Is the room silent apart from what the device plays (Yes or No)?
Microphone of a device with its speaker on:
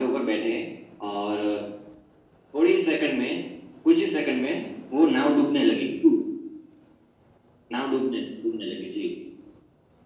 Yes